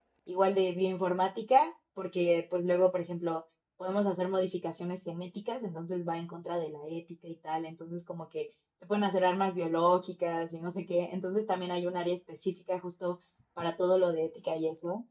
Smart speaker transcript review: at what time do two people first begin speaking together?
none

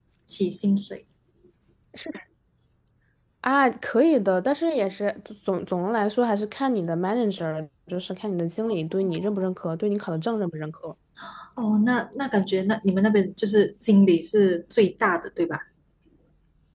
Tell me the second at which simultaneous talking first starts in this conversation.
none

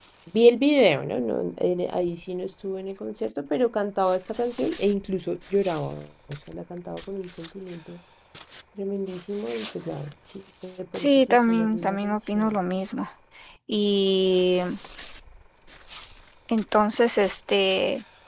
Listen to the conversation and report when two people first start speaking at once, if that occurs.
10.9 s

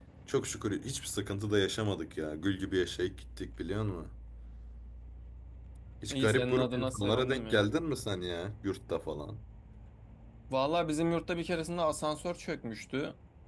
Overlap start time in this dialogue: 6.1 s

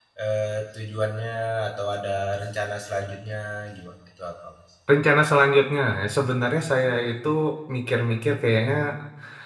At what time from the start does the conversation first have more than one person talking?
none

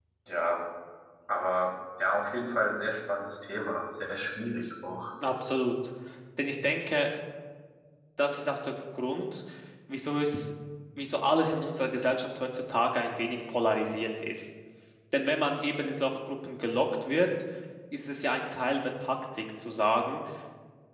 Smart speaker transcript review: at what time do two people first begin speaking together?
none

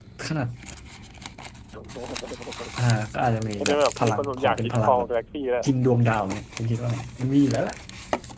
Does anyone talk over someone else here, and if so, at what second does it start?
3.6 s

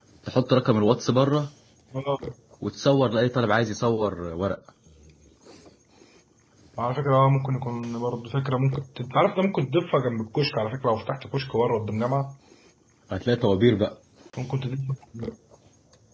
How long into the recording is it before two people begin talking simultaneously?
none

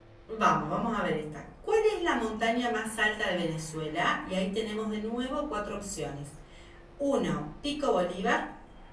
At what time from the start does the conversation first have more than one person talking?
none

